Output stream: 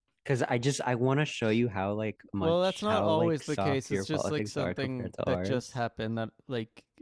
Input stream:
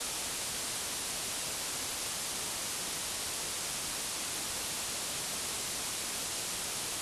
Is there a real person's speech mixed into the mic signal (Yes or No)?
No